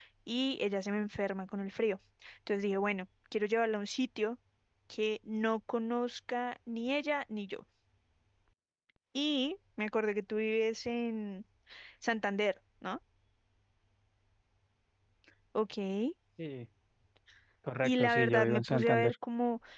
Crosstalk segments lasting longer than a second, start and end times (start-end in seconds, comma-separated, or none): 17.8-19.1